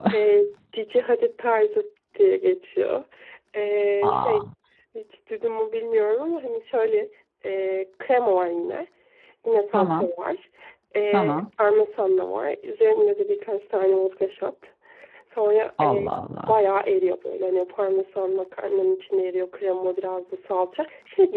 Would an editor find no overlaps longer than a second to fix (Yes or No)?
Yes